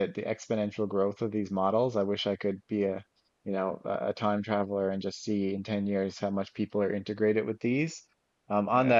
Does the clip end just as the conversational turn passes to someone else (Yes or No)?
No